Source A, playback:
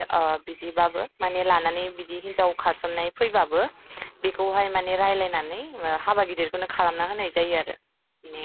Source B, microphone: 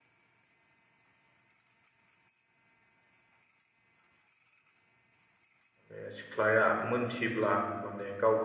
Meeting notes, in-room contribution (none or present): present